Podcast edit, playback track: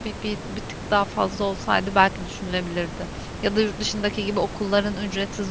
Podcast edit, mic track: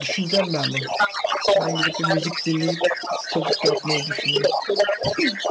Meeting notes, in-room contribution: present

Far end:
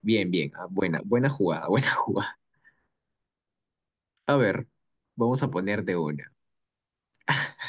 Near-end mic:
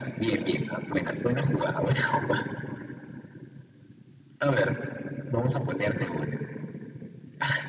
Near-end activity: none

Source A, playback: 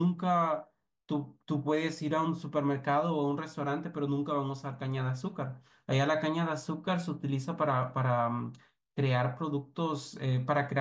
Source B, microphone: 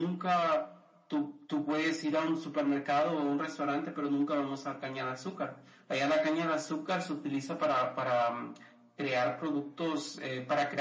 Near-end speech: none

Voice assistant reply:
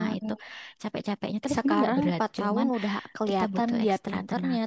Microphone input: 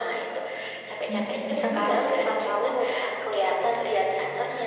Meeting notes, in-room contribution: present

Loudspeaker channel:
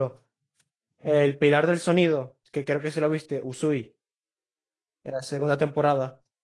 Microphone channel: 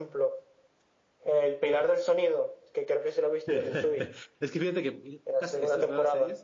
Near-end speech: present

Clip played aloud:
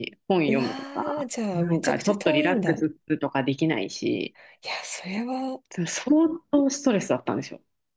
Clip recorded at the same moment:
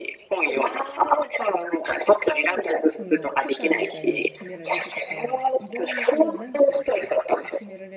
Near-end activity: present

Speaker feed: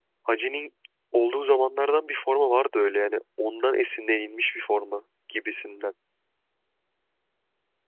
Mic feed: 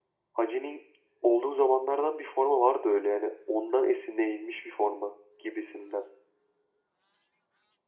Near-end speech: none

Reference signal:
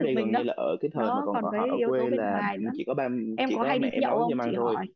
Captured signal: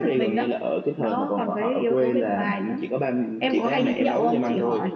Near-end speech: present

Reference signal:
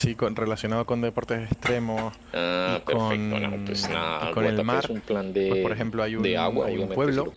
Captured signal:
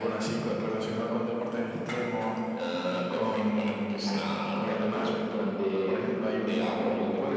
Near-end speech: none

